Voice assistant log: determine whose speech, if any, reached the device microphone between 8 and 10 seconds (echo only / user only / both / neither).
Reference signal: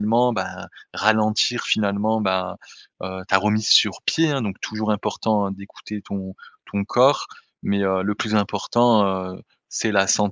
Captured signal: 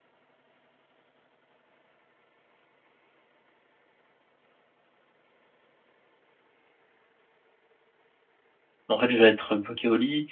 user only